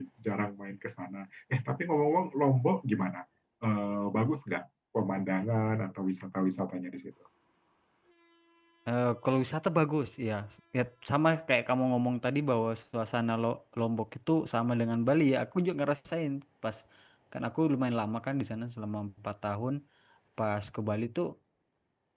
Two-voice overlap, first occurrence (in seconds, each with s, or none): none